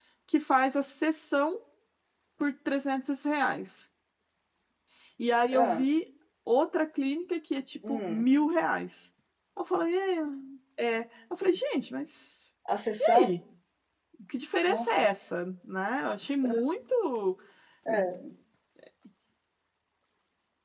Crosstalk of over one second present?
No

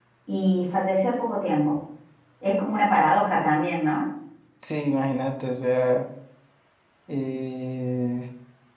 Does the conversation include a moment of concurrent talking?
No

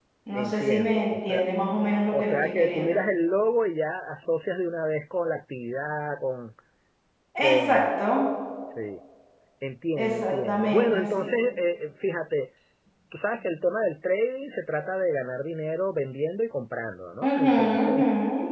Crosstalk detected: Yes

